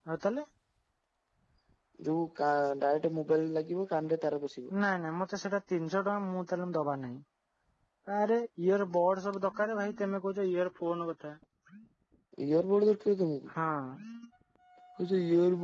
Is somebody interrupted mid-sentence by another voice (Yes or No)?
No